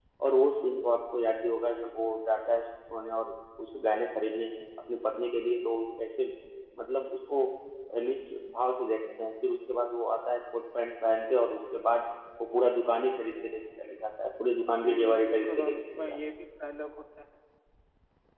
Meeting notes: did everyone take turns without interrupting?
No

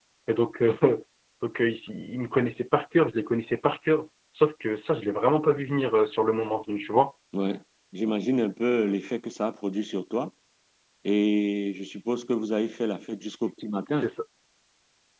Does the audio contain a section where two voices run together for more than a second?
No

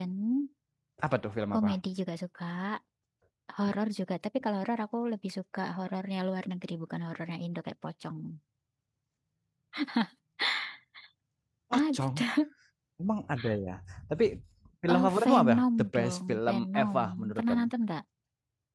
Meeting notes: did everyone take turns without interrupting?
No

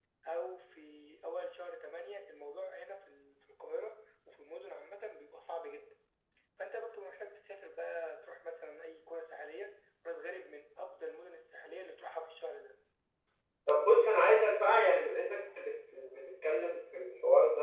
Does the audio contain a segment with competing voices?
No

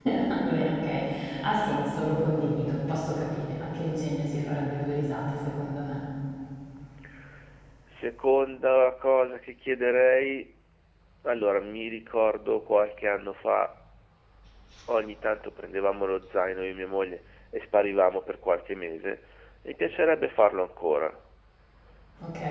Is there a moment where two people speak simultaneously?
No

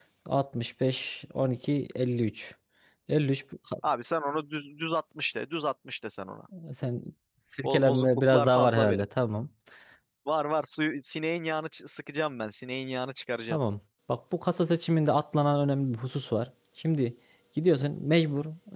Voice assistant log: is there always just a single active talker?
No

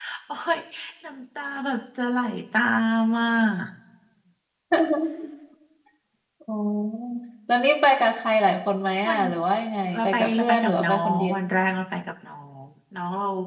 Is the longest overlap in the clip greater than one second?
Yes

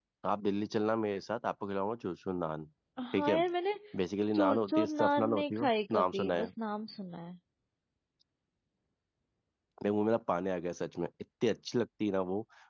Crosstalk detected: Yes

